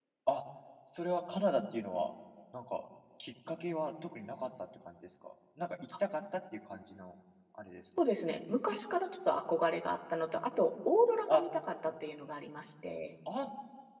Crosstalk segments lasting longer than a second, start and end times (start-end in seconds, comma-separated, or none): none